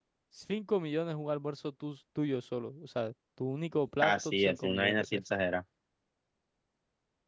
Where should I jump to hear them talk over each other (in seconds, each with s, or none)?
4.0 s